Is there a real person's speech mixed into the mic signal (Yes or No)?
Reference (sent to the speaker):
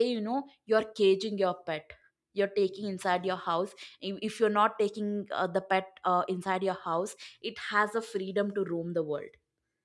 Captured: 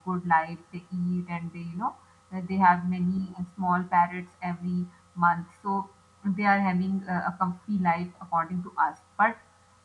Yes